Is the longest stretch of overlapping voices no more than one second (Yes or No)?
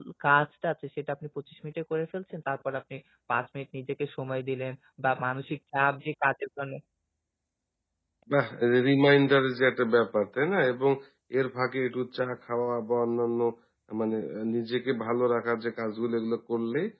Yes